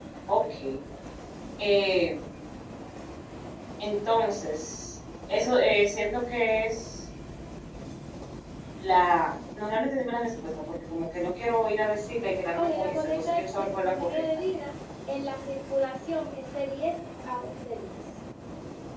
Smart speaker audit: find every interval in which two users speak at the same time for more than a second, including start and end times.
12.5-14.2

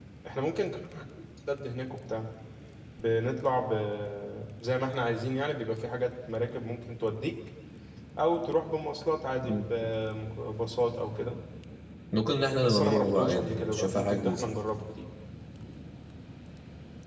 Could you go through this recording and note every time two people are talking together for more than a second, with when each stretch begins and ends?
12.6-14.4

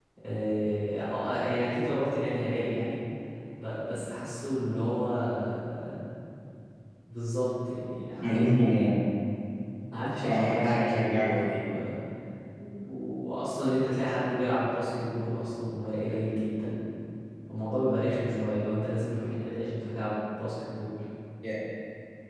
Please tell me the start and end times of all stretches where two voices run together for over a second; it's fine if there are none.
10.2-11.6

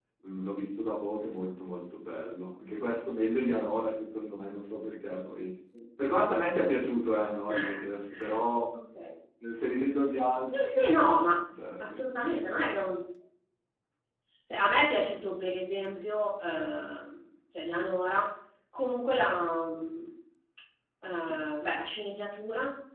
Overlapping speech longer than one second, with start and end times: none

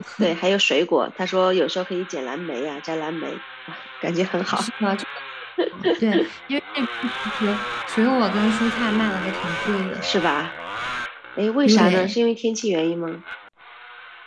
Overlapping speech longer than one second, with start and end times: none

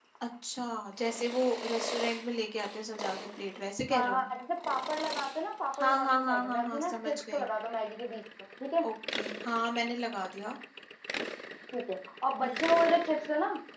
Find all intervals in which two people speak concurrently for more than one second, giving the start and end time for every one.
5.8-7.5

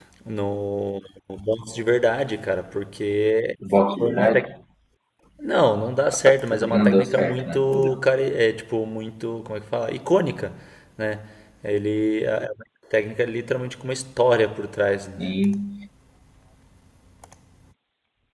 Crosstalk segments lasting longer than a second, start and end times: 6.3-8.1

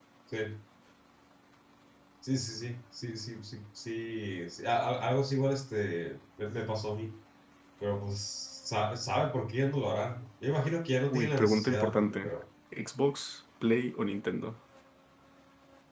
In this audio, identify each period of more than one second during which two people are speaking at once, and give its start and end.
11.1-12.3

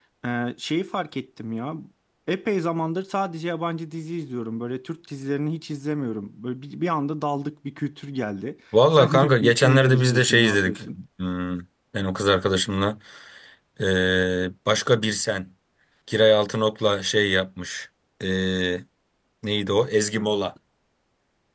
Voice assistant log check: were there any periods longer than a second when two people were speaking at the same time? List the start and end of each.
8.9-10.8

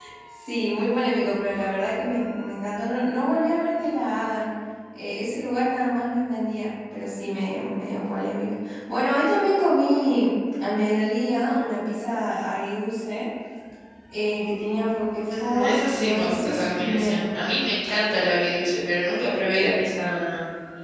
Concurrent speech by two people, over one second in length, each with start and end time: 15.3-17.2

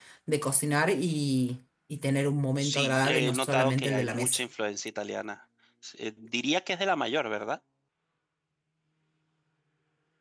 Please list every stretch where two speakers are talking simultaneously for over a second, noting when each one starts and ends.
2.6-4.4

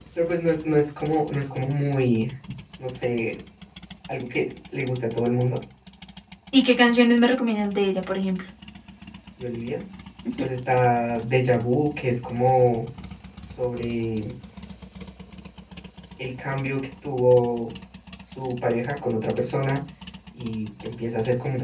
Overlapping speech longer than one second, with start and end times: none

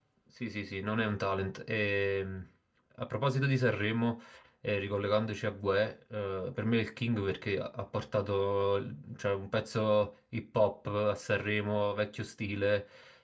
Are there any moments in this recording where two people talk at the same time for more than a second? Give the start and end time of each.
none

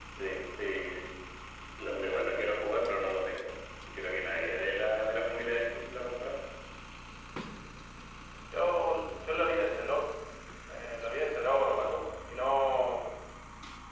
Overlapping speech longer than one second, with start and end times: none

